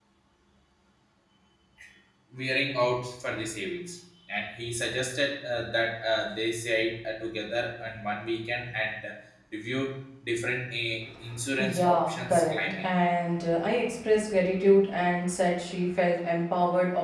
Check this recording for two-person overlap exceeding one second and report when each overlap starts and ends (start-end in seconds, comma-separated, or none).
11.6-12.9